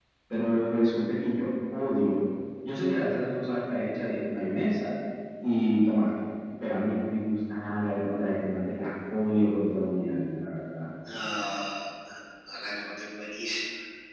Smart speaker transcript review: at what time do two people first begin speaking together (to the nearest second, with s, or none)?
none